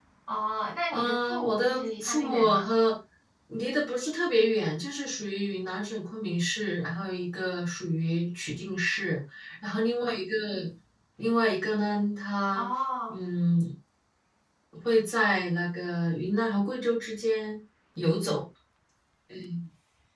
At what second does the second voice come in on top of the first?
0.9 s

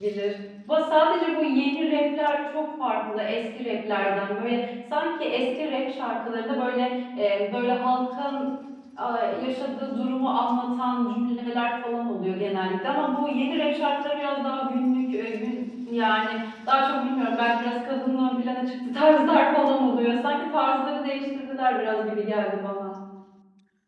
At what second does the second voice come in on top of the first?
none

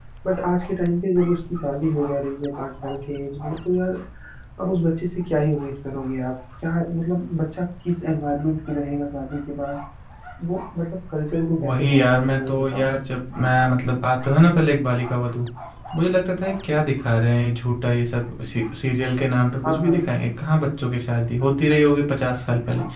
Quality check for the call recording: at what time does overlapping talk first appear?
11.6 s

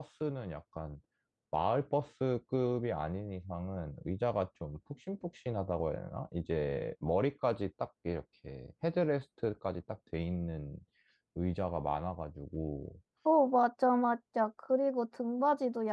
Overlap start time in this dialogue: none

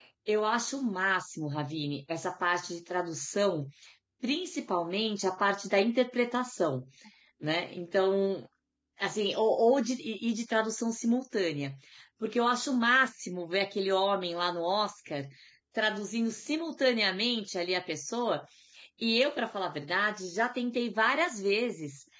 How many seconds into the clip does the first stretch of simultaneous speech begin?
none

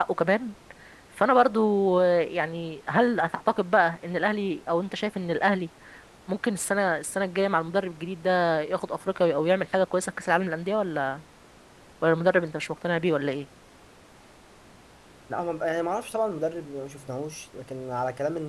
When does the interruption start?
none

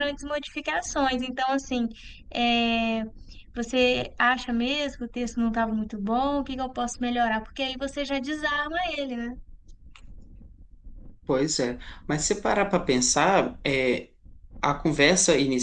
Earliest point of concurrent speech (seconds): none

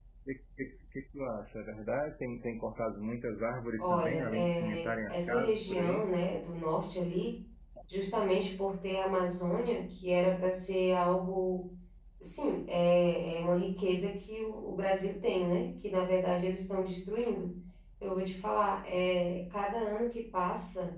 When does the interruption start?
3.8 s

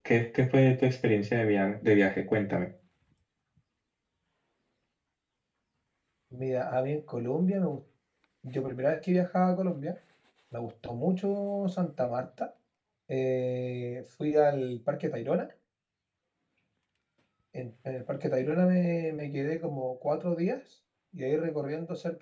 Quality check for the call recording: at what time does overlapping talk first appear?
none

